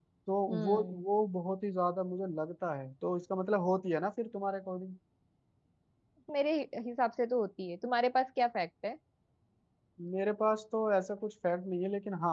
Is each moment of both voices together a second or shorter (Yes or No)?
Yes